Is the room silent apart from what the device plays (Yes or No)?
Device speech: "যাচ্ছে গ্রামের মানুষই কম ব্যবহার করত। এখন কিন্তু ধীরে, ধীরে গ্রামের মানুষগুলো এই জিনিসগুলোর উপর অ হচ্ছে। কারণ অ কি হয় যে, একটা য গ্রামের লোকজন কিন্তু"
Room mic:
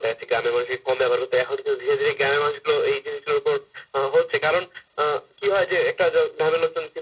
Yes